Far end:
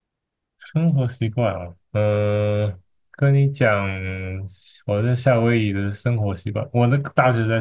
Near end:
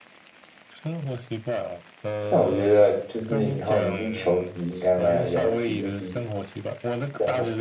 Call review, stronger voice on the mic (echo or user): user